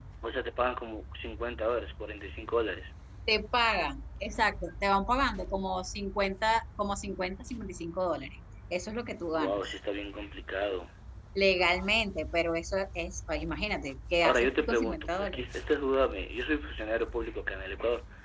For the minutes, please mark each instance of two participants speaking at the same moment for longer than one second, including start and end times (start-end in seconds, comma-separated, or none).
14.2-15.5